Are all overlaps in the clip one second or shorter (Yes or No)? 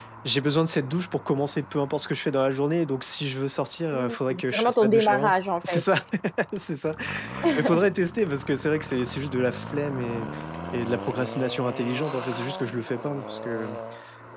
No